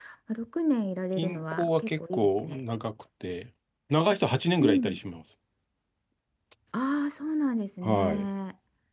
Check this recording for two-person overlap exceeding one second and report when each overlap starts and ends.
1.2-2.6

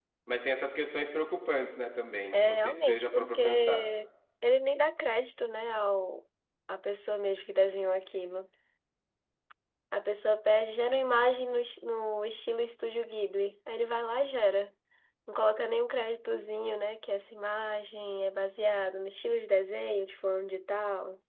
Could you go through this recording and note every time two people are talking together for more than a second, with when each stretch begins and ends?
2.3-3.8

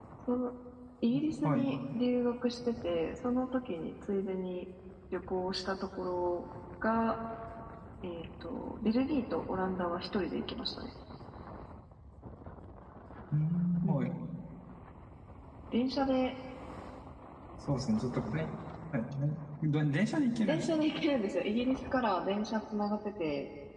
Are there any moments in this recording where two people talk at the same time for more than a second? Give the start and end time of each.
none

